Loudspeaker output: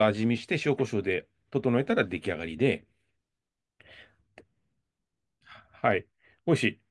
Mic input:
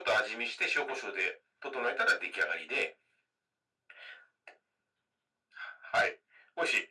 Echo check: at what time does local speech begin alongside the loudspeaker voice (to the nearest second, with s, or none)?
none